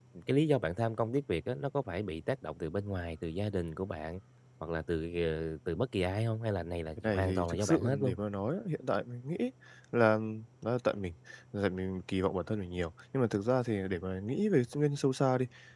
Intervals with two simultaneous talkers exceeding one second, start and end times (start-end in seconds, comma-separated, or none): 7.0-8.2